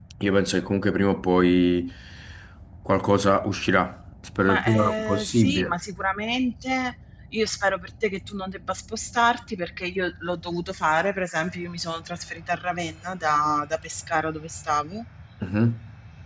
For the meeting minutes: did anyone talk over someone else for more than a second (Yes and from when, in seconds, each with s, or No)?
Yes, from 4.5 s